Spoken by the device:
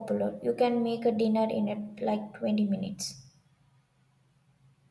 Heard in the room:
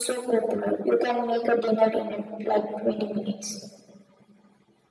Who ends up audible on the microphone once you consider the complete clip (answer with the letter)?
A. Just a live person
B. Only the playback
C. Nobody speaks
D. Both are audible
B